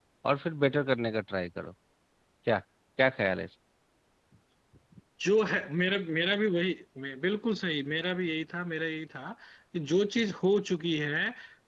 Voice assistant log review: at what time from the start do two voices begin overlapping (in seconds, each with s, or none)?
none